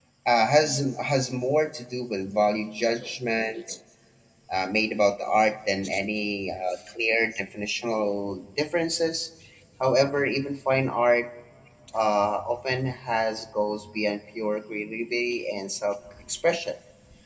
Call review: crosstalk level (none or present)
present